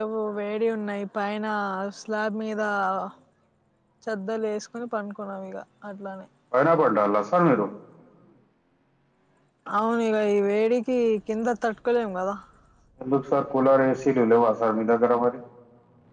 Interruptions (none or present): none